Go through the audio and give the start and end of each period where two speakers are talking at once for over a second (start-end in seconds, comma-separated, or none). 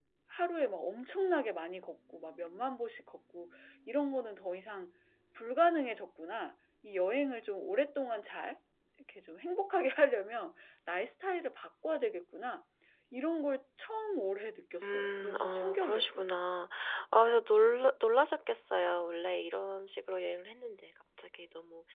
14.8-16.2